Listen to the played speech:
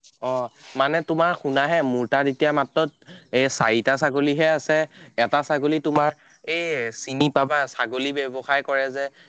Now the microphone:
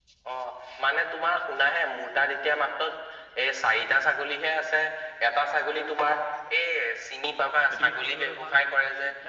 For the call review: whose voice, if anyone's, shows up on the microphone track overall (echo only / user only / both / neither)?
both